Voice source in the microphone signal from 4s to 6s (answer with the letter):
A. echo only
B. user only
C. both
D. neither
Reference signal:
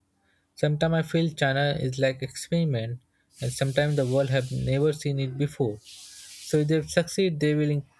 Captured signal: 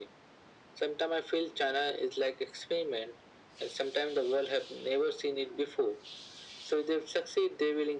A